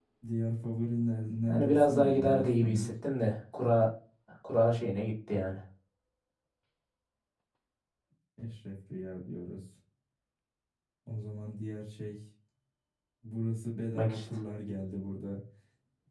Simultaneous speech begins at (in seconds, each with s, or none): 1.4 s